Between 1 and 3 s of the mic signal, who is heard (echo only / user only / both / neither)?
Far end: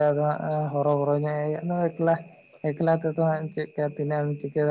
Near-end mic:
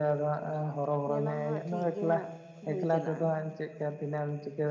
both